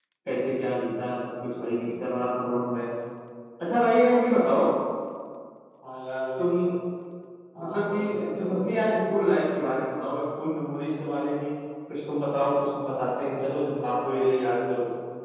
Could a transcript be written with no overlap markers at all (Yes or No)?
No